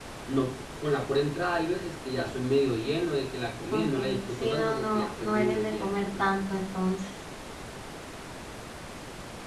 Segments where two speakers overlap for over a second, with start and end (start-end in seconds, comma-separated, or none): 3.7-6.2